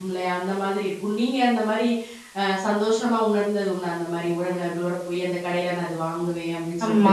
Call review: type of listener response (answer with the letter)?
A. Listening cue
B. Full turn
B